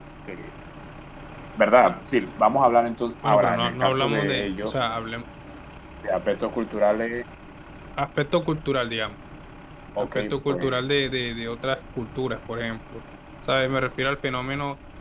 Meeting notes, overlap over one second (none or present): present